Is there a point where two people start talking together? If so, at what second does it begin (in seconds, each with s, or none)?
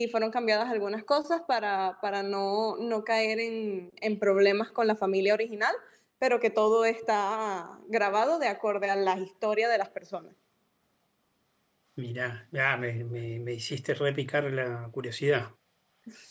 none